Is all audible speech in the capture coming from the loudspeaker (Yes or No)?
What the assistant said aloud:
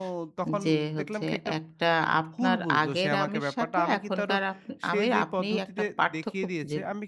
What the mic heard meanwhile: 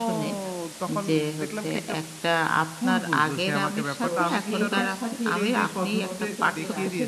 No